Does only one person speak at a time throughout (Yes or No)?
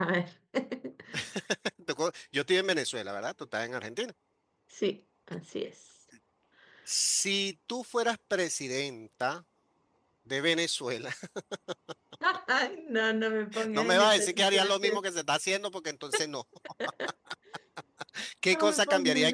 No